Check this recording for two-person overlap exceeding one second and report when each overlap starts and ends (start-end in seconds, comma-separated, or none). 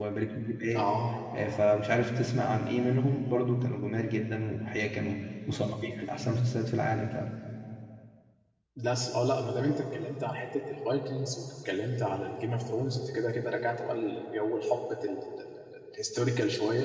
none